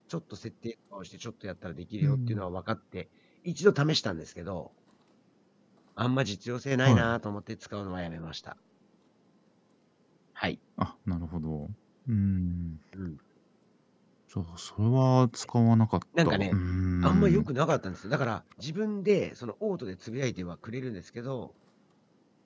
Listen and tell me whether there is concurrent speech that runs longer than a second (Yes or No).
No